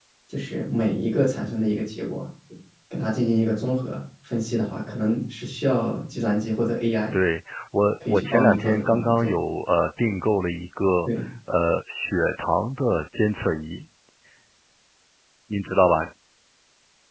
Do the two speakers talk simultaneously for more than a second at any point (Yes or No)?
Yes